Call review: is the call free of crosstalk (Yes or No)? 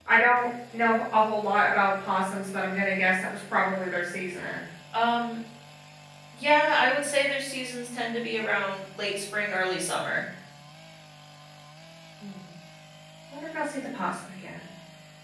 Yes